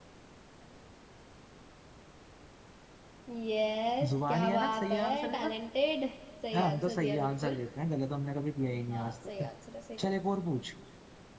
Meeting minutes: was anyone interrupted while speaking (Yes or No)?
Yes